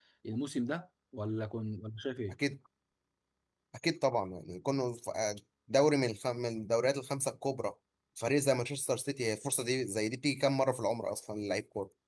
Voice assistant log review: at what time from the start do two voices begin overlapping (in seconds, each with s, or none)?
none